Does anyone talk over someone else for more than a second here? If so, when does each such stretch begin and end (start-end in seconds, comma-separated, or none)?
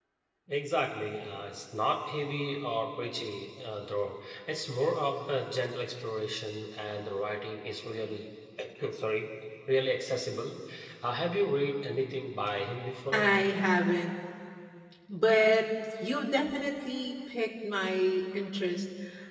none